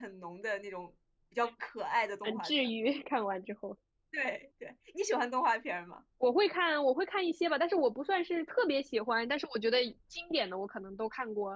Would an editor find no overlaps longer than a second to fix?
Yes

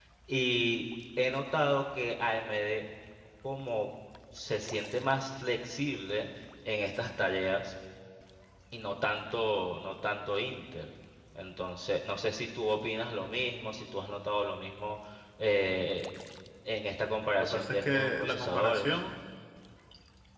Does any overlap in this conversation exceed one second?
Yes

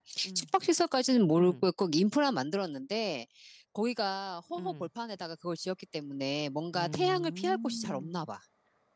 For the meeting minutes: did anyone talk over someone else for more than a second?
Yes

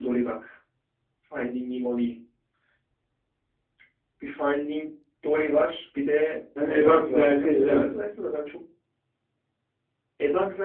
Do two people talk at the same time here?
Yes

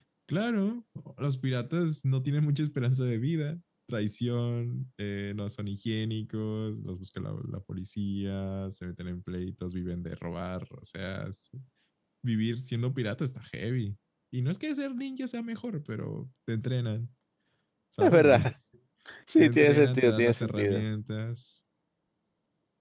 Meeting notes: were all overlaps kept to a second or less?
No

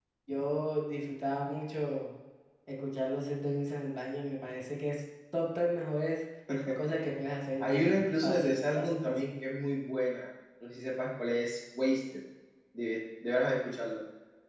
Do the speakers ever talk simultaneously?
Yes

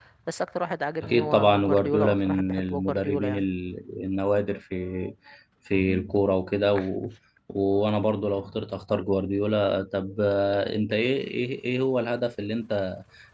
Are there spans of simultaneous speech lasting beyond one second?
Yes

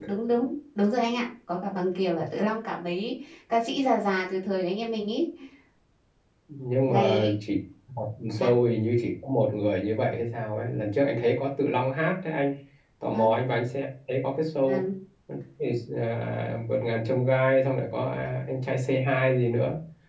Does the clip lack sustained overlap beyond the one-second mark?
Yes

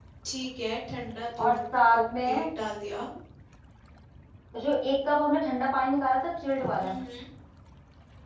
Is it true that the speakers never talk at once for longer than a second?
Yes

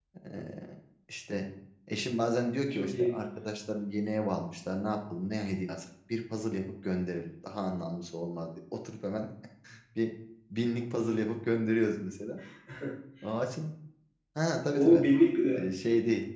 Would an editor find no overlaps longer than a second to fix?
Yes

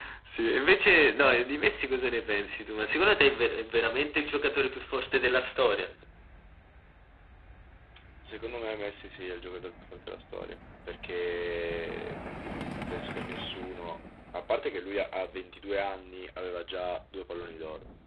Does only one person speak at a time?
Yes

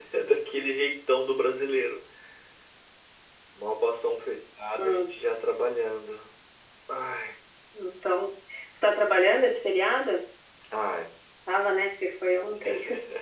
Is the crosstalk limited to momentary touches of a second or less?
Yes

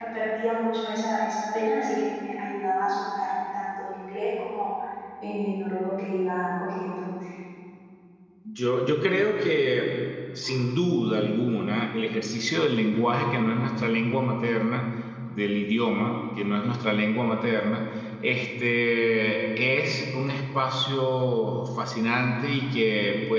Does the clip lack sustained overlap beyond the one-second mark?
Yes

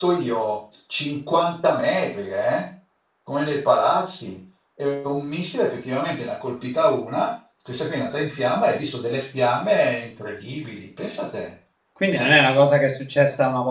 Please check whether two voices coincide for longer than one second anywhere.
No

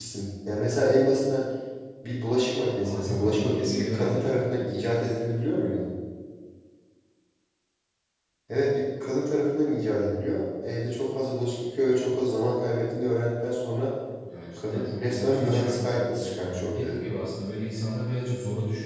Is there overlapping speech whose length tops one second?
Yes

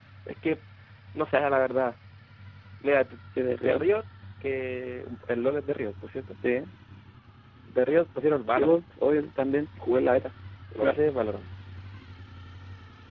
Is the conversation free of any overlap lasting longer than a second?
Yes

